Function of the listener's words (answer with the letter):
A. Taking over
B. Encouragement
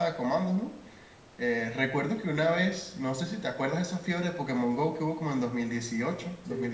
B